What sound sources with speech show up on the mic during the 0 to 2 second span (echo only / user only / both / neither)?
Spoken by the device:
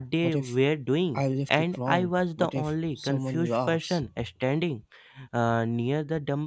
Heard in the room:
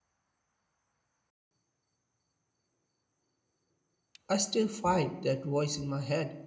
neither